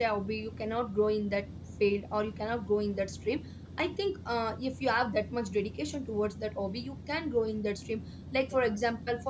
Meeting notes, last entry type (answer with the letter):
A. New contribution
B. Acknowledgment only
B